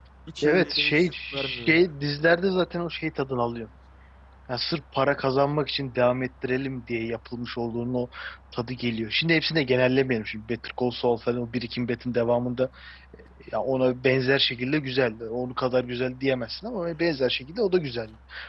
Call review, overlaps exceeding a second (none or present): present